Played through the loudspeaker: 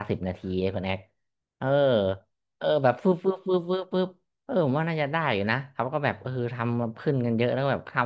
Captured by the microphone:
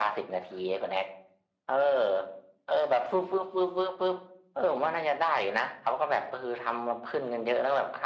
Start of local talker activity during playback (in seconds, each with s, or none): none